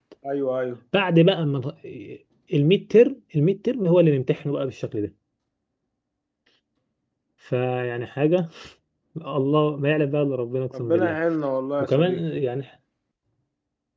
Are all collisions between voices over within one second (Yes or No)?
Yes